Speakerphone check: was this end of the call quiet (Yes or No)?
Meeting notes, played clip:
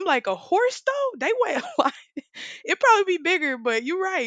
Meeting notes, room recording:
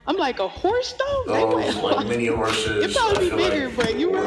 No